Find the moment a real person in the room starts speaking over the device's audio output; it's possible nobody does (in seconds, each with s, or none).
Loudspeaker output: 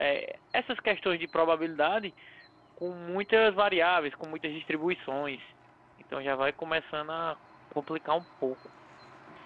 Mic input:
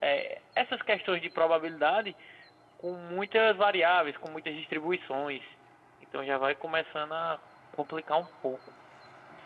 none